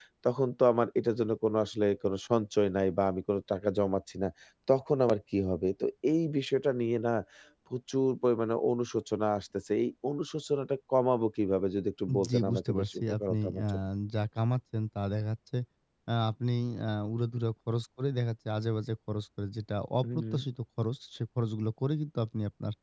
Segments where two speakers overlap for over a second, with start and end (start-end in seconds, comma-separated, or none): 12.3-13.6